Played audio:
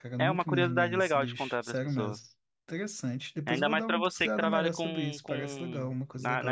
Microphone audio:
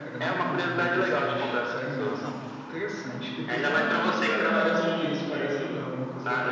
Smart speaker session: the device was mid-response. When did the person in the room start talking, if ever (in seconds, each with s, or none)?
2.2 s